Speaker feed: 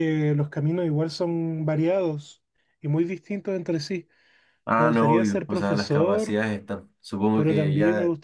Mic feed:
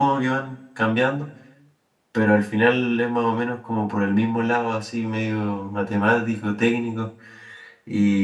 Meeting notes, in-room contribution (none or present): present